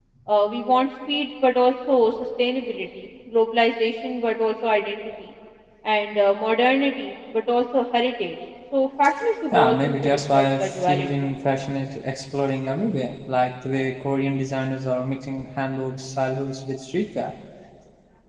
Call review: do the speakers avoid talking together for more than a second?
No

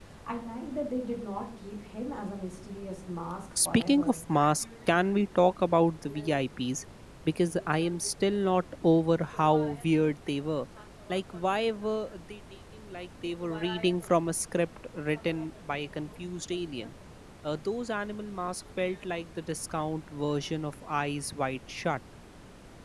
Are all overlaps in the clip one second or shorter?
Yes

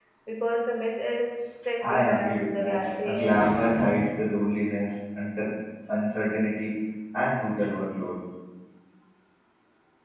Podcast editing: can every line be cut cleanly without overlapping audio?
No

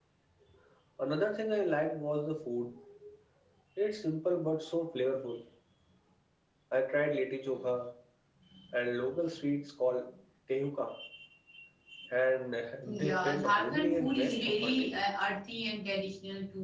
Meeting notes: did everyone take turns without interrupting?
No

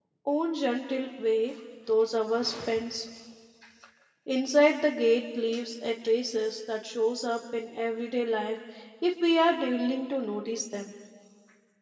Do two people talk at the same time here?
No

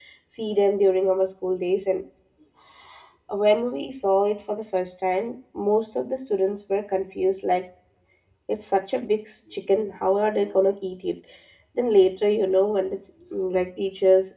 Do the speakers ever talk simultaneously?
No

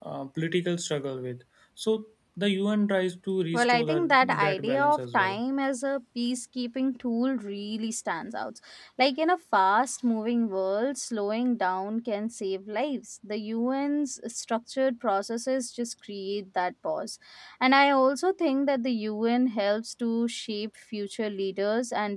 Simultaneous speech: Yes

